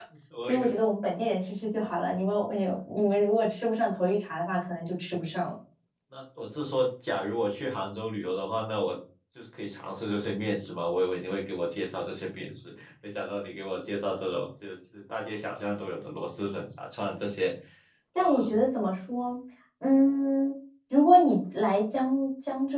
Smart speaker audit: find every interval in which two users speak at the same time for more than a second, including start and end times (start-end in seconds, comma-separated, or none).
none